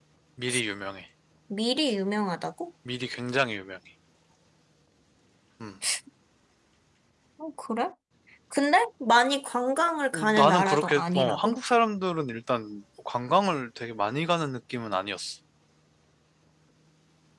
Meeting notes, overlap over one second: present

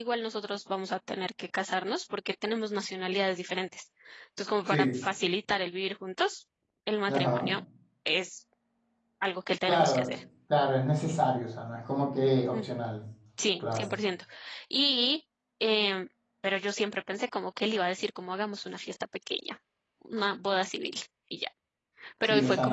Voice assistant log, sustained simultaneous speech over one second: none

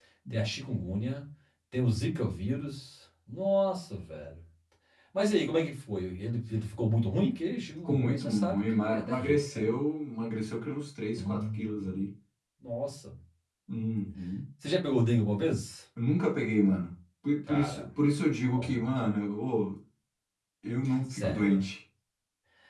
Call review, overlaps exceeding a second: present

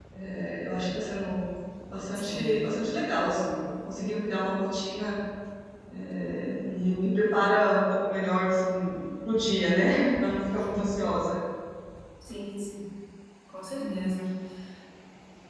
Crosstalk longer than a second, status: none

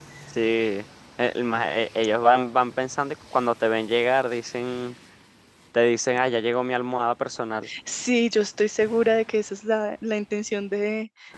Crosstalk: none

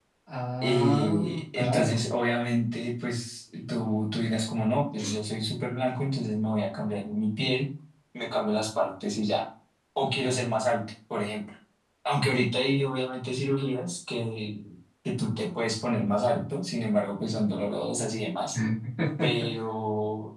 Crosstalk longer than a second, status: present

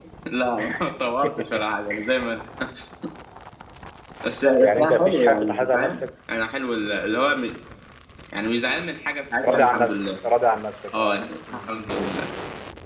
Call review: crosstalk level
present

